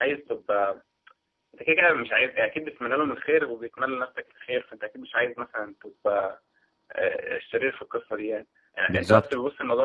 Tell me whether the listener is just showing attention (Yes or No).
Yes